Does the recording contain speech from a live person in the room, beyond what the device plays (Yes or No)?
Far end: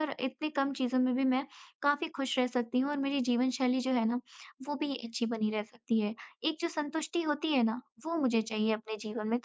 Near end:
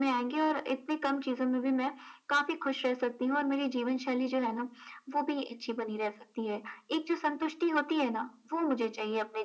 No